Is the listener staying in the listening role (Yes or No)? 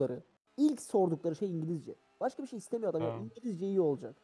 Yes